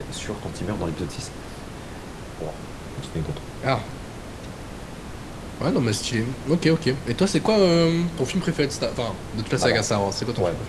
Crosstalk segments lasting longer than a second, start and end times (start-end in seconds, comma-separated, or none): none